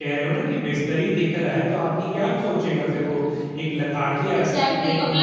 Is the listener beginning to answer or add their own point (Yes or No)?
Yes